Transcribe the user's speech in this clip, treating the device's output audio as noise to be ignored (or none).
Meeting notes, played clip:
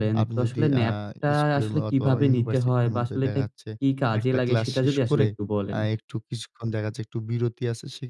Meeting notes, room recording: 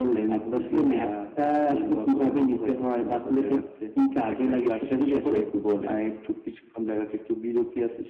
উম জি।